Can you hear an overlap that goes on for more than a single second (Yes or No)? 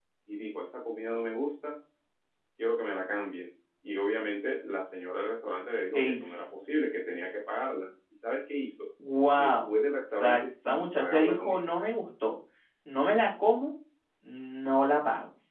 Yes